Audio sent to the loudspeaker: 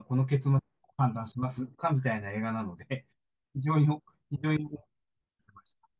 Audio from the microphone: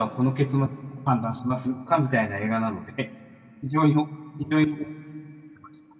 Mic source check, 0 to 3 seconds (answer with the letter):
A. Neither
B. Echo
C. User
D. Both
B